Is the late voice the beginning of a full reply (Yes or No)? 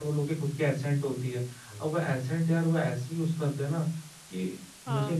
No